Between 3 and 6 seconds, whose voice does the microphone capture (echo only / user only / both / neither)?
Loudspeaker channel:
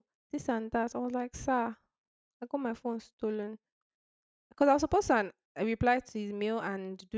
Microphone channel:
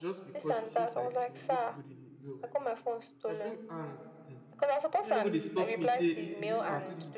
both